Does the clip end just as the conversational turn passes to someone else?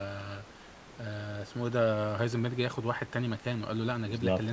No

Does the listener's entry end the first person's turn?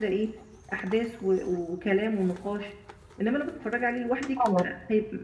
No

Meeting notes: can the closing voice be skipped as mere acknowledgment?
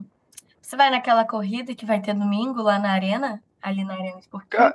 No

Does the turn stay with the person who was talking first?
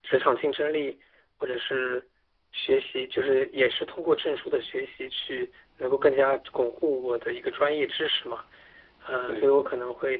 Yes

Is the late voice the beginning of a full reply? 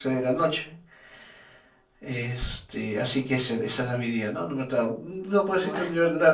No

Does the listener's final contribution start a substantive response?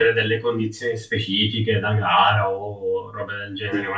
No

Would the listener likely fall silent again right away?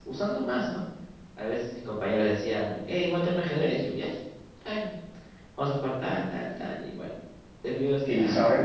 No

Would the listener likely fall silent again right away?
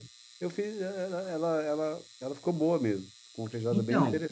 No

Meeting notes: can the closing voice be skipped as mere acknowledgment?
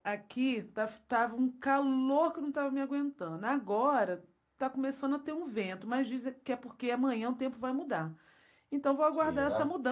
Yes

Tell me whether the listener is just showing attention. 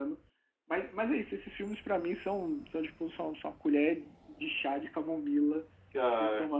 Yes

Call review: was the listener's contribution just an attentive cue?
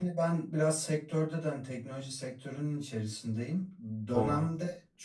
Yes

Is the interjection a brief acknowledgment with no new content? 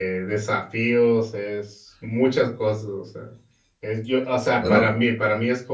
Yes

